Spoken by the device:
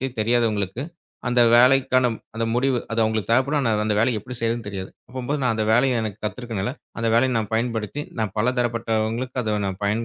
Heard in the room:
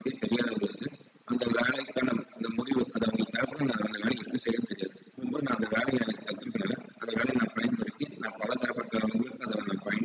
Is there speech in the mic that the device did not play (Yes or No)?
No